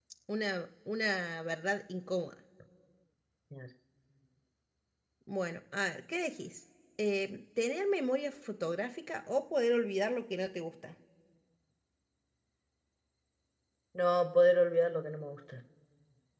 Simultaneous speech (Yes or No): No